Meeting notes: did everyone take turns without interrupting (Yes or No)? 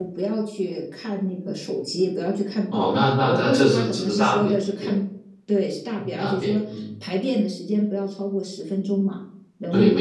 No